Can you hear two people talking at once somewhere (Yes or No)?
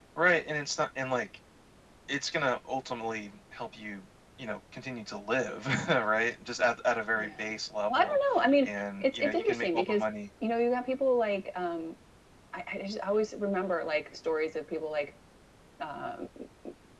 Yes